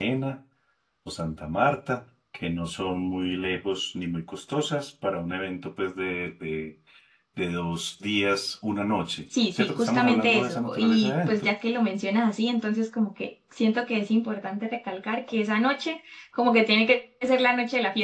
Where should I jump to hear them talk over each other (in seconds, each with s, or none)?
9.5 s